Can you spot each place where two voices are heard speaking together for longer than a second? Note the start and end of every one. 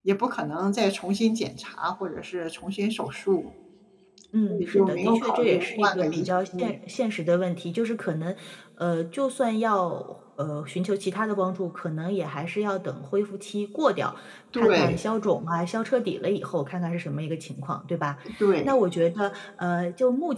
4.5-6.1

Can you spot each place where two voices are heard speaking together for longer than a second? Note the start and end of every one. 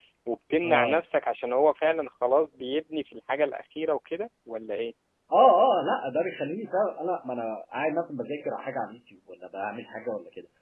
none

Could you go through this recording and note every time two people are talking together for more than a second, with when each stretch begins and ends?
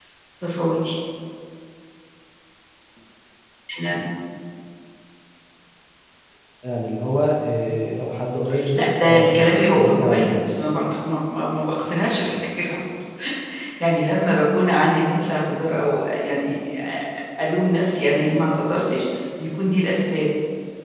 8.8-10.4

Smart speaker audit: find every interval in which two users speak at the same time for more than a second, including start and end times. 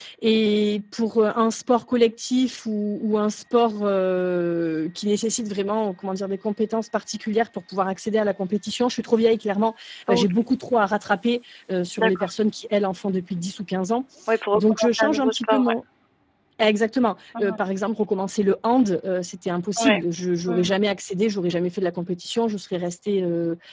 14.5-15.7

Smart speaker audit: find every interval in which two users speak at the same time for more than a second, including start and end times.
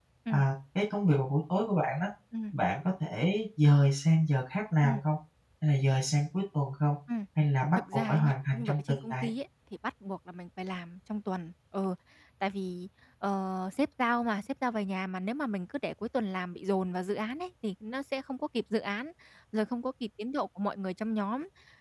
7.8-9.3

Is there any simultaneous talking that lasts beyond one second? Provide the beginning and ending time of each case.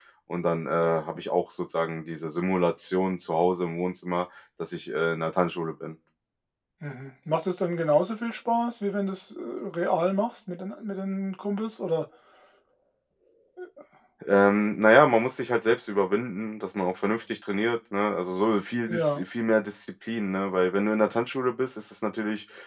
none

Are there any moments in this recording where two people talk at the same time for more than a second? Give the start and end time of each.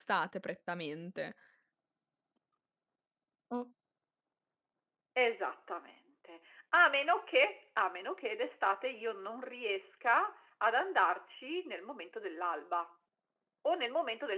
none

